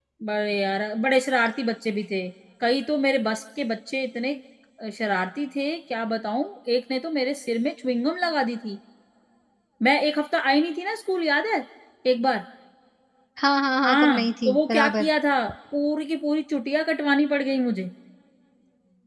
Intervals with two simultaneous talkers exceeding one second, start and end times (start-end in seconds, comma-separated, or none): 13.9-15.1